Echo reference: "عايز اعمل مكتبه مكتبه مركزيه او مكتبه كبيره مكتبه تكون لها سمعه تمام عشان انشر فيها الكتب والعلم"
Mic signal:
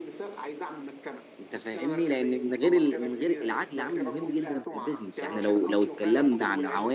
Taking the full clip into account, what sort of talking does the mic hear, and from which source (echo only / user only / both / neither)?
both